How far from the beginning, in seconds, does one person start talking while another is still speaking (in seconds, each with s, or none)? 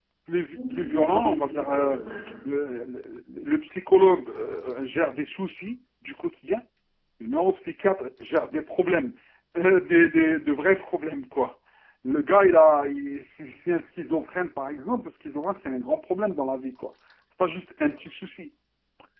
0.5 s